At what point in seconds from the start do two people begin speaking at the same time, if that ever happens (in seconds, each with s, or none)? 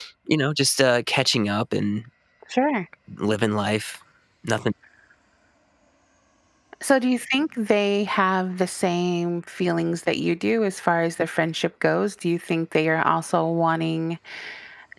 none